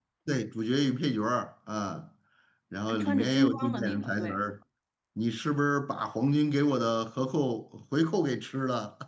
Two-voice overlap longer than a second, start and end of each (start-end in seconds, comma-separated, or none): 2.9-4.4